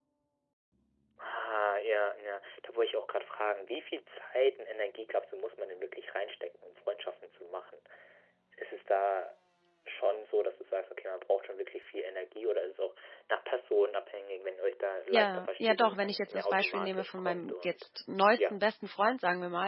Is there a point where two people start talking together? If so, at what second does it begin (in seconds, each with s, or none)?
15.1 s